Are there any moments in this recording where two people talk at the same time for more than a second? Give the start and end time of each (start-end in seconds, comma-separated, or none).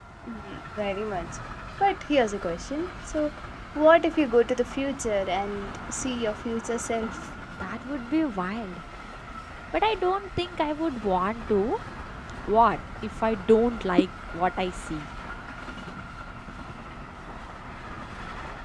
none